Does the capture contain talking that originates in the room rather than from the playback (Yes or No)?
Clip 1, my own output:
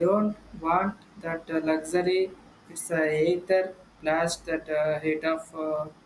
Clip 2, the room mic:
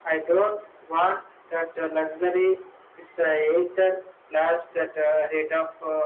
No